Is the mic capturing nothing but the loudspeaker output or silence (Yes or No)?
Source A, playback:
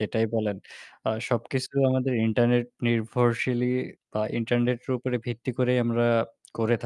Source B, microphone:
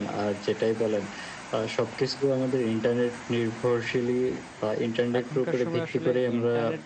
No